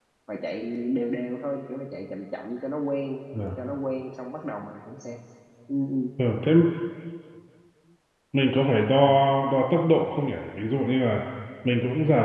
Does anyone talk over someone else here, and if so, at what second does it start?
none

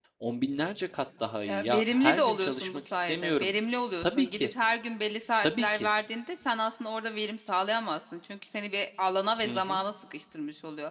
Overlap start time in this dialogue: 1.5 s

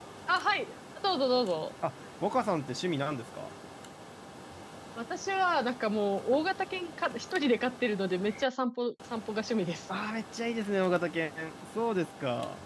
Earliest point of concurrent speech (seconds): none

